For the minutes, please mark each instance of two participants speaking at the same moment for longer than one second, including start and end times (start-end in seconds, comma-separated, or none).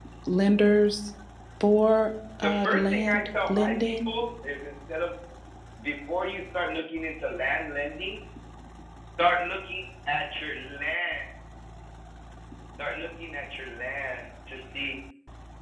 2.4-4.1